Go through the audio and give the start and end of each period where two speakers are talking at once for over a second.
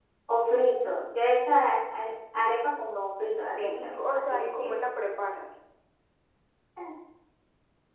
3.6-4.8

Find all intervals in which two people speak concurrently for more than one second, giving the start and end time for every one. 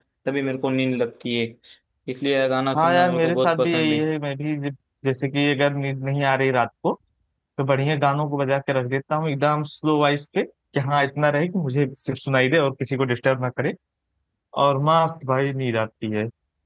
2.8-4.0

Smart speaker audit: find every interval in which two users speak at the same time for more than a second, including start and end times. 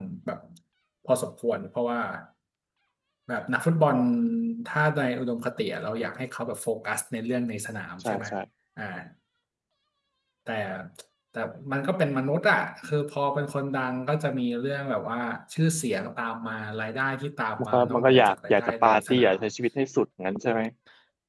17.6-19.4

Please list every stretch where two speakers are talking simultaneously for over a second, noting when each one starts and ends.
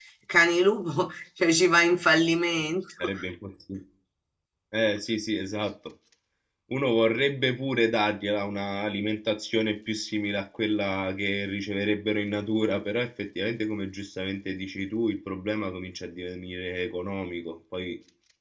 none

